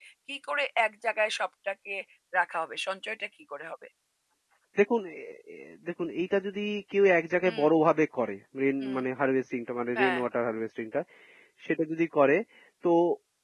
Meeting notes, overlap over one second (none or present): none